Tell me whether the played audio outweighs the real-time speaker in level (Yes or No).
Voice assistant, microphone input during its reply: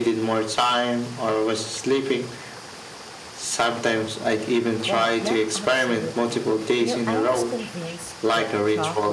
Yes